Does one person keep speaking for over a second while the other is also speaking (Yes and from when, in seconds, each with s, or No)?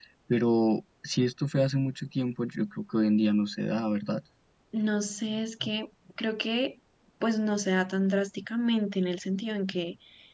No